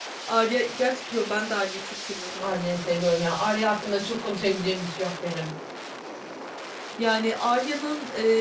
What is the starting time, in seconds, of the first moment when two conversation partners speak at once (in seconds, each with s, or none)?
none